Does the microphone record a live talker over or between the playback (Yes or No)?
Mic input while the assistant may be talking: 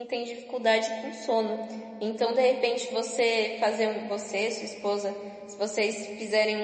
Yes